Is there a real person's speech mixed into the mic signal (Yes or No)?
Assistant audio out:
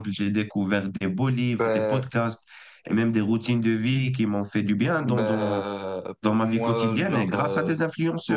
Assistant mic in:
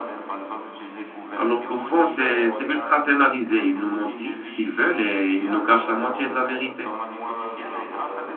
Yes